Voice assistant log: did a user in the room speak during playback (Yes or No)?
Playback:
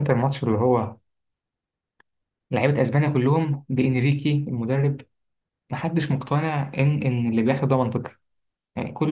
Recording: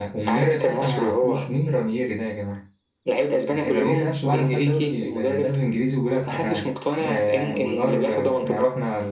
Yes